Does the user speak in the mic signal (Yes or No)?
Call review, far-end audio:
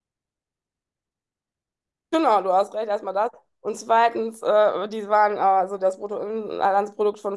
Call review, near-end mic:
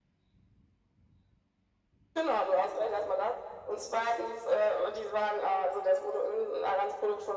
No